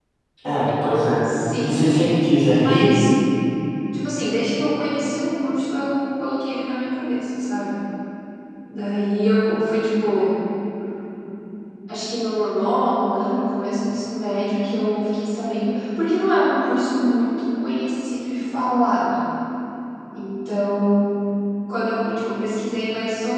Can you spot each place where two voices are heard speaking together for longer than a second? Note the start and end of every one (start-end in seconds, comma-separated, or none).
none